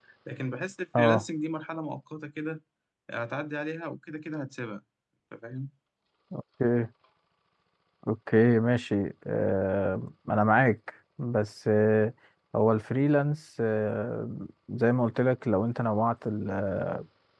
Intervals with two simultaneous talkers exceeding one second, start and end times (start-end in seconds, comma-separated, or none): none